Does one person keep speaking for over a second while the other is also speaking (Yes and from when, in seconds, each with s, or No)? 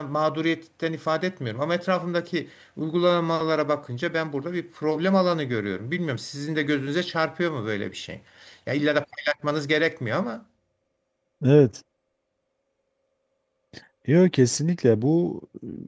No